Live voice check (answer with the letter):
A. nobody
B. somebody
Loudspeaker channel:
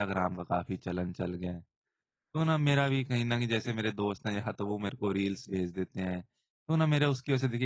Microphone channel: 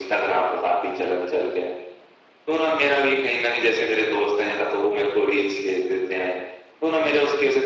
A